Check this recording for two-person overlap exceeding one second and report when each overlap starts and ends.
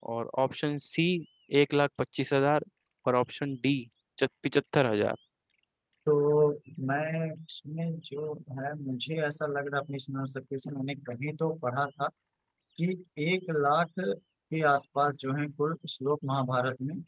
none

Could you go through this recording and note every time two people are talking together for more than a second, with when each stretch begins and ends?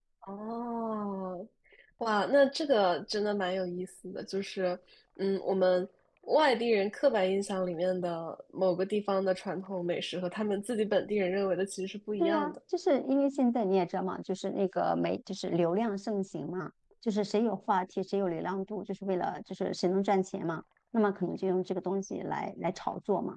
none

